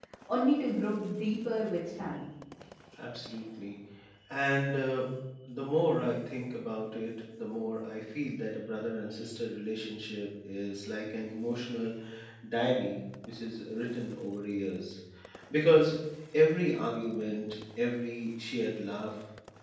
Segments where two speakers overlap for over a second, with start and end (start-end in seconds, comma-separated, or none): none